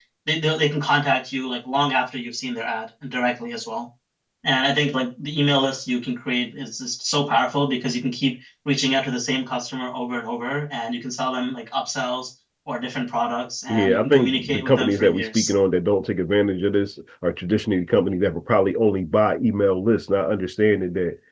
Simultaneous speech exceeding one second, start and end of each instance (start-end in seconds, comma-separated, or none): 13.7-15.5